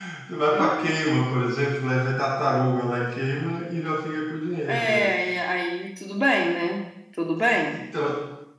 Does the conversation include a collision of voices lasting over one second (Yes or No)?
No